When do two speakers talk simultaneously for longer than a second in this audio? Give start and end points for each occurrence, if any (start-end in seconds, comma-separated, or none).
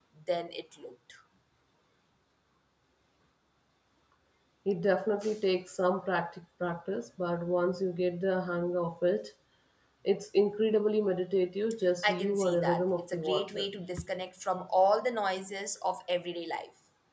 12.0-13.7